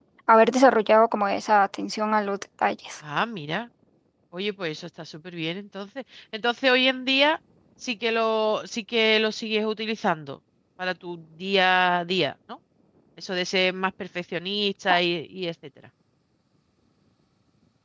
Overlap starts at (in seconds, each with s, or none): none